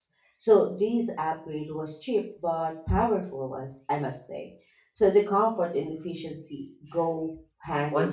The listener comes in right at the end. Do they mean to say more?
Yes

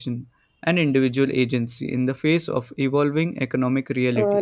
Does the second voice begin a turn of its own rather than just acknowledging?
Yes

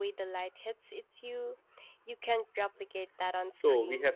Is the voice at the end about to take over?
Yes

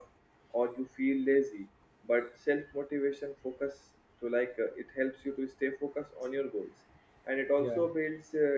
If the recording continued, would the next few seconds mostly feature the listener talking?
No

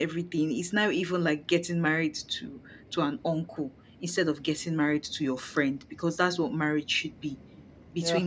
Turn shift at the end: No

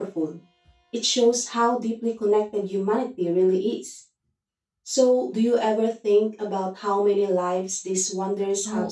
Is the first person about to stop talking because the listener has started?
Yes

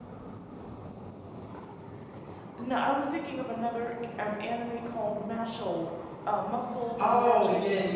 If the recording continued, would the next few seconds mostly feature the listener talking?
Yes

